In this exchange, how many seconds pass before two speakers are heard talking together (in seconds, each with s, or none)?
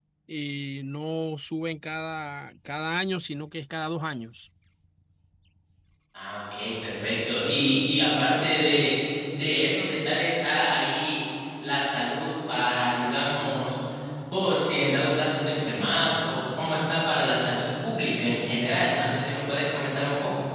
none